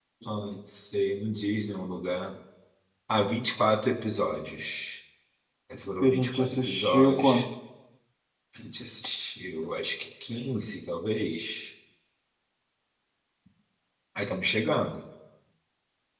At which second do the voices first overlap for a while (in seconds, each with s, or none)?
6.0 s